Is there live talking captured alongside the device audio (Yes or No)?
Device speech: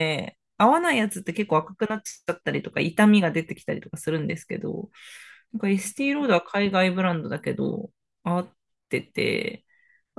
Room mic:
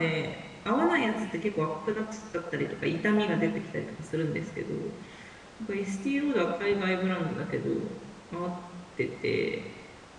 No